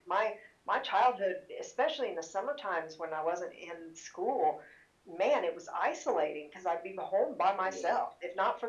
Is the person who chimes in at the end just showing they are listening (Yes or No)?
Yes